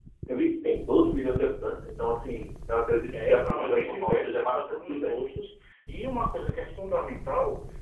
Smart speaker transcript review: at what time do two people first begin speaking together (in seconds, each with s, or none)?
3.1 s